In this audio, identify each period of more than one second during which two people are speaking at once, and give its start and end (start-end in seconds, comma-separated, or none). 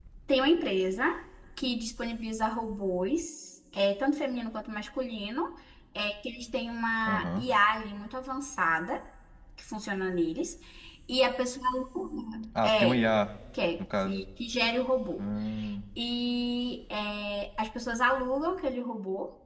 none